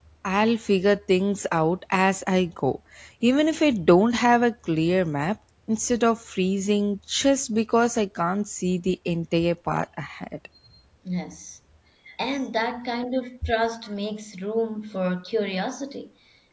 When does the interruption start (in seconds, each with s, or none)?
none